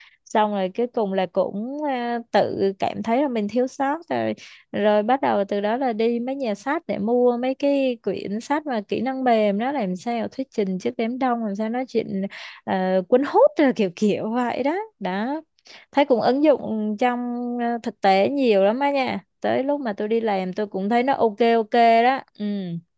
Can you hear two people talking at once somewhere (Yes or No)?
No